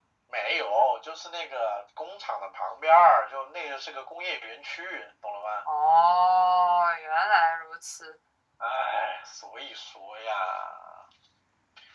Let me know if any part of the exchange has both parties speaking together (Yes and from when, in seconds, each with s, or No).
No